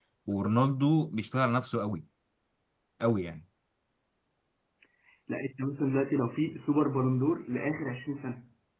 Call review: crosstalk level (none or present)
none